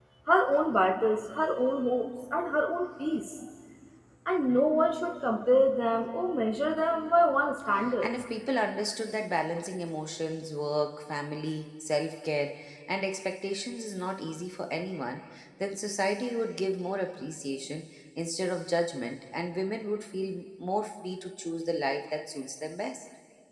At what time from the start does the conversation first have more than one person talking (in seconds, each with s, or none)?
none